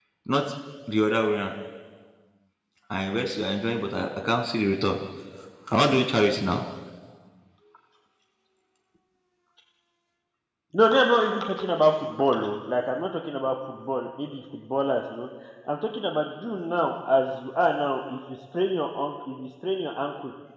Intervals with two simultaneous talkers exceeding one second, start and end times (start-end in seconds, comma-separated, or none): none